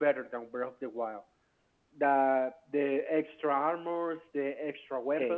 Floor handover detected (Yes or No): No